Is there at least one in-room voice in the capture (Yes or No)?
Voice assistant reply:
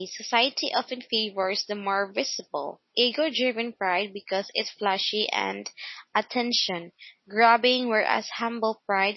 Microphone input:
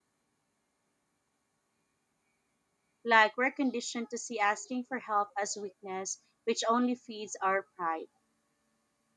Yes